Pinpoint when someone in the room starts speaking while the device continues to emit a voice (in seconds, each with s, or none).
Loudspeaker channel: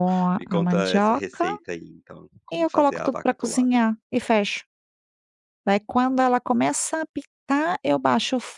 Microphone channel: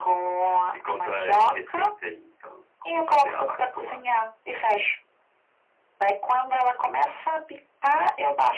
none